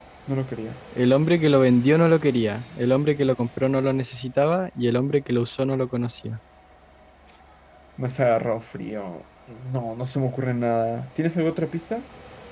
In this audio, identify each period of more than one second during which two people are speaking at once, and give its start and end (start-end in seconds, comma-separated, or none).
none